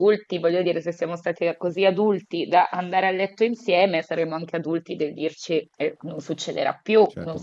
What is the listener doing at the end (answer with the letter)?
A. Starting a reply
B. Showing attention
A